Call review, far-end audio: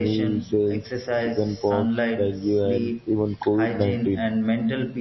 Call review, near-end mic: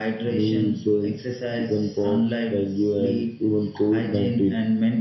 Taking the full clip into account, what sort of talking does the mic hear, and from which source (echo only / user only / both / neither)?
echo only